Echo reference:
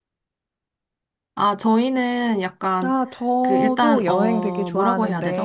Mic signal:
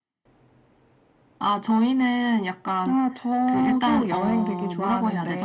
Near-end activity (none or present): none